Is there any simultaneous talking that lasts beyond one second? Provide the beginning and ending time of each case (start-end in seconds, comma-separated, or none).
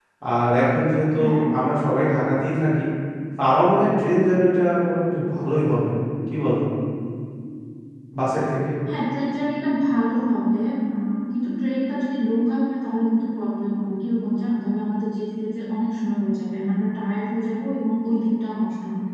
none